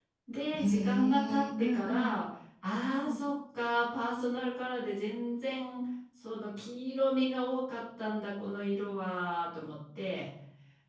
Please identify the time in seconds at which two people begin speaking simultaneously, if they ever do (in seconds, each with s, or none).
0.5 s